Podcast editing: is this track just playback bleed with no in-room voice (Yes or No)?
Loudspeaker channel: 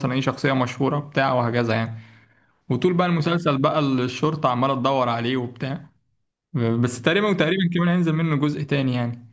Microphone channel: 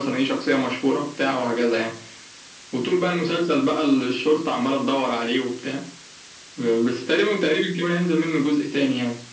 Yes